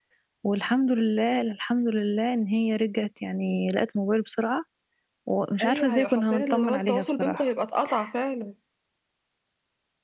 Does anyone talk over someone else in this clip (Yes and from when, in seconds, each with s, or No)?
Yes, from 5.6 s